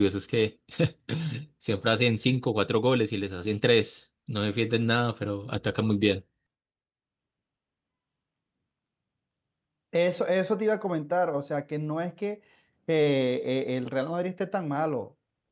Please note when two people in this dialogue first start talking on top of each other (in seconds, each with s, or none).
none